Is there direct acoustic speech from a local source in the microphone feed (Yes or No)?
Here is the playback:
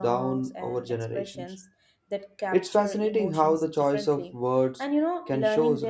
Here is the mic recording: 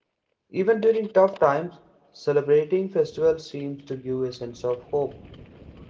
Yes